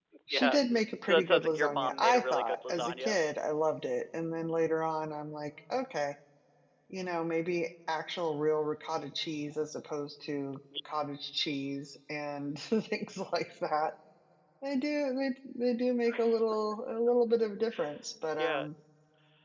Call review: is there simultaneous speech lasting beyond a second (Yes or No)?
Yes